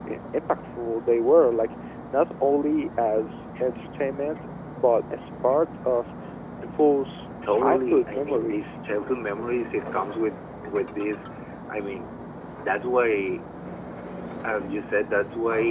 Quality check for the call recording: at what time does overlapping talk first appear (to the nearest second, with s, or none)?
7 s